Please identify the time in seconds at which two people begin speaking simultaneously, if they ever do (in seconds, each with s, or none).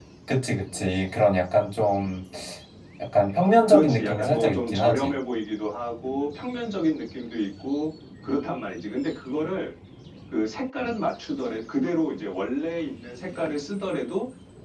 3.7 s